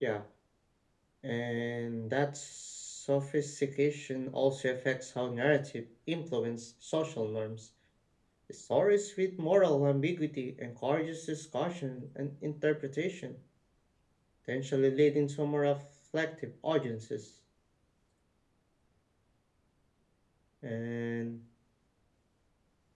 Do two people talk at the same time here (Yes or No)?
No